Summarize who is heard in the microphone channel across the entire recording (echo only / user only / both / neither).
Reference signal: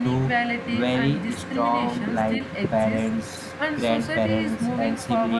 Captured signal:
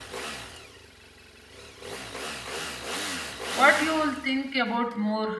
user only